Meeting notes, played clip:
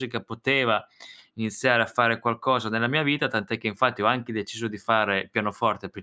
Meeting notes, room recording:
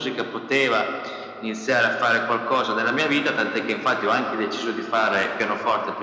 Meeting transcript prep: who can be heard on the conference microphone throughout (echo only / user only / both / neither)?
echo only